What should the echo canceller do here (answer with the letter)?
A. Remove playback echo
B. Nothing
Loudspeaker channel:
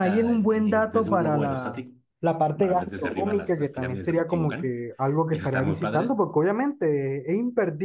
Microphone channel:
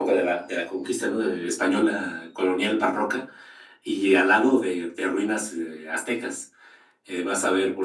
B